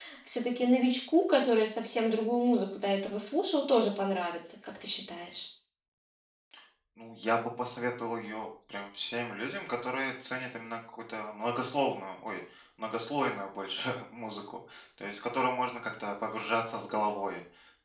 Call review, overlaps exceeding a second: none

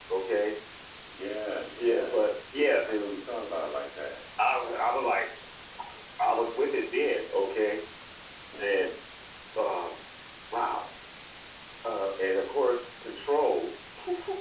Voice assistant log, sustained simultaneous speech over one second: none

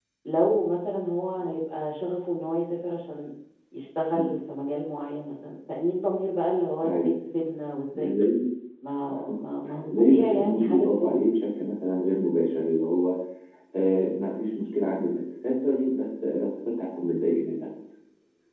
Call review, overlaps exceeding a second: present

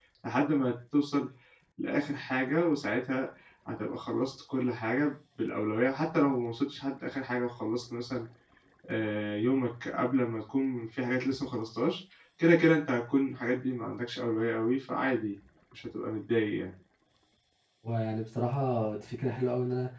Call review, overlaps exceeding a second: none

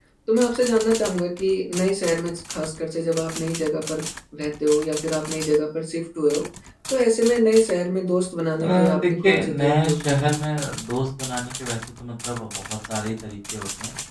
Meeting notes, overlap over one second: present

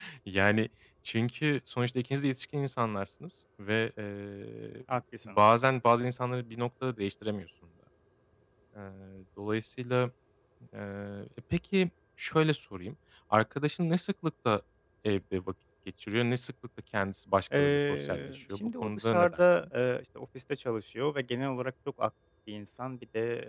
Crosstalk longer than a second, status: present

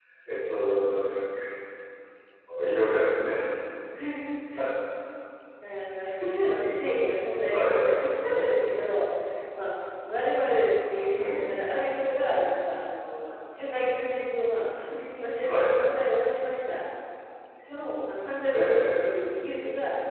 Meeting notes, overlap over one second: none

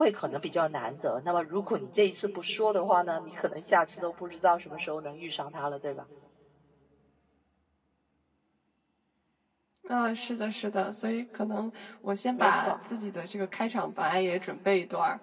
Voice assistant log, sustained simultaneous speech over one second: none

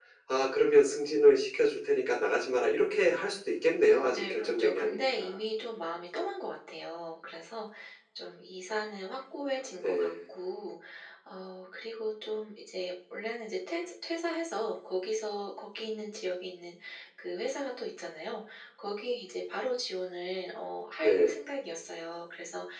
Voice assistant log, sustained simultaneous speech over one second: present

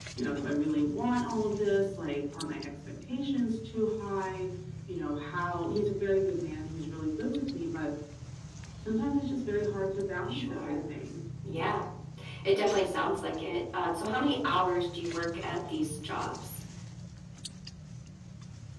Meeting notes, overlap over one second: none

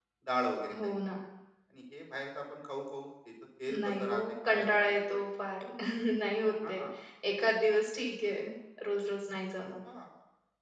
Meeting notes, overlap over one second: present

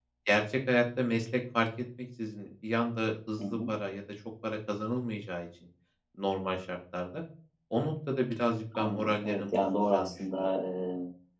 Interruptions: present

